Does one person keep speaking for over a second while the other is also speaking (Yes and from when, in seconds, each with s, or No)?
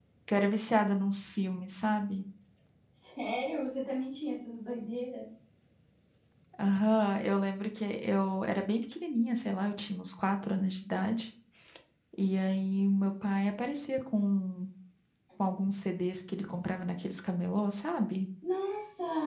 No